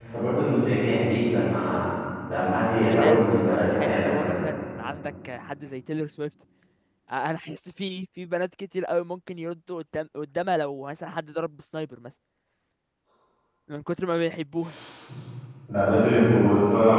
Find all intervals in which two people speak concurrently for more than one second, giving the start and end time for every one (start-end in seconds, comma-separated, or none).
2.9-4.5